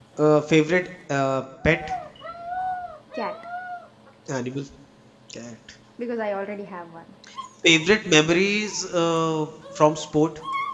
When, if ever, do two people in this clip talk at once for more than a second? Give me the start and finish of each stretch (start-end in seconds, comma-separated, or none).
none